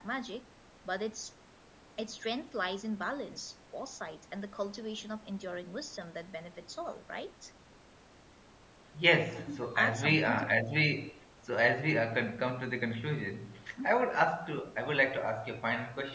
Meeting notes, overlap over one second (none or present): present